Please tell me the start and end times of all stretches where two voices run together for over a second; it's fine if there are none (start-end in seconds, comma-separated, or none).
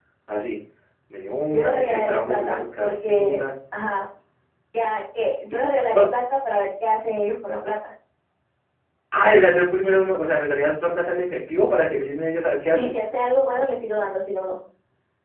1.5-3.4